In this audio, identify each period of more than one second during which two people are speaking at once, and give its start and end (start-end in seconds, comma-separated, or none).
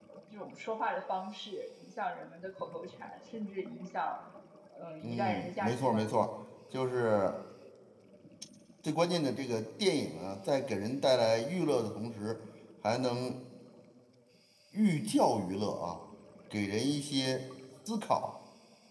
5.0-6.3